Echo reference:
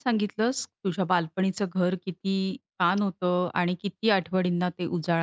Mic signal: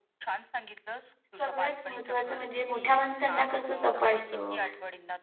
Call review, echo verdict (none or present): present